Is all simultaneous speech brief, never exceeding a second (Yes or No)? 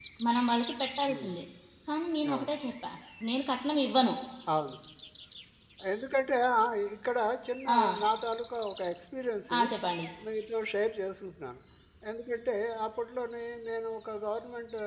Yes